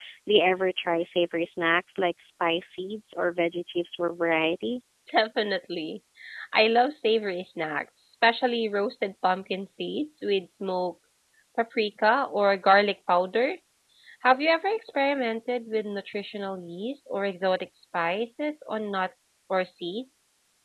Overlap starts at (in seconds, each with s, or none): none